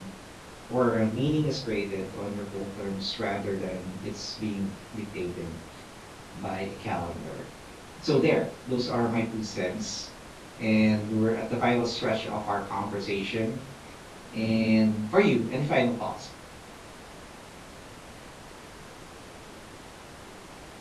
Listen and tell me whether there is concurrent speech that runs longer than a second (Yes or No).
No